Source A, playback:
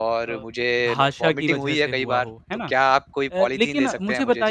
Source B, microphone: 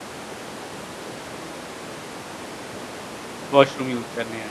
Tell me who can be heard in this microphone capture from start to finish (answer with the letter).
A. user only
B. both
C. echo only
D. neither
A